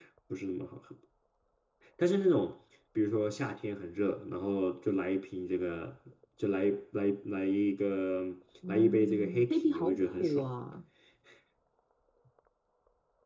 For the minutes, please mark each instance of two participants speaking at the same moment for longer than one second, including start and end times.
8.7-10.4

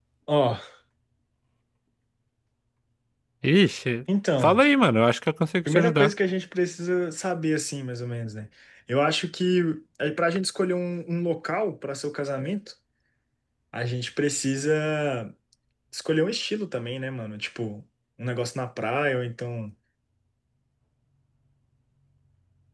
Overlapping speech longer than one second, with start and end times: none

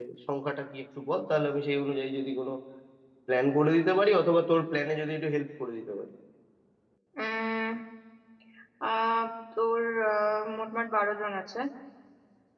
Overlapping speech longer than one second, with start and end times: none

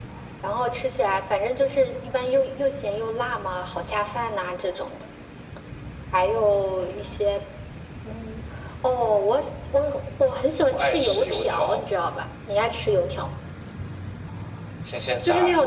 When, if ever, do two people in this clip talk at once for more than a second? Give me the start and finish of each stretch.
10.7-11.9

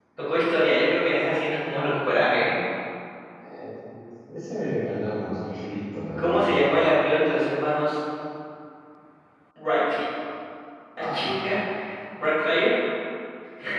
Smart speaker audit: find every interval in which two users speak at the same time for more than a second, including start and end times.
none

